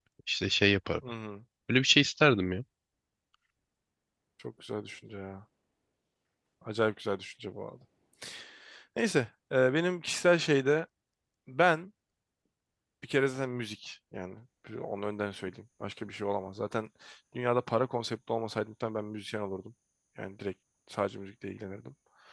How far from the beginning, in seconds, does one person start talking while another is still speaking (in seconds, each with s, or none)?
none